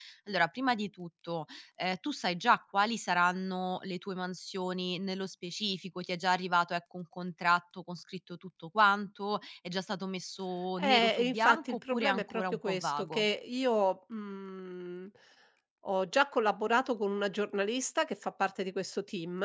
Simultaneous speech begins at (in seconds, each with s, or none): 10.8 s